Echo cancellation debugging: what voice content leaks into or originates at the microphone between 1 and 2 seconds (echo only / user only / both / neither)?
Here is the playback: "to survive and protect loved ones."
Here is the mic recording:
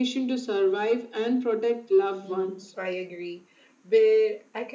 echo only